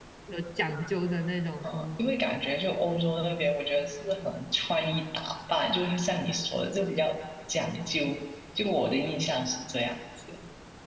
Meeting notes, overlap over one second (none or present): none